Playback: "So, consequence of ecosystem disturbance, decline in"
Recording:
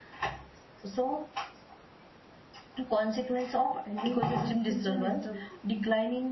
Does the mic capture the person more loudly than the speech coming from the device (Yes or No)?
No